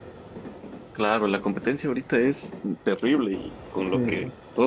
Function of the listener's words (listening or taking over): listening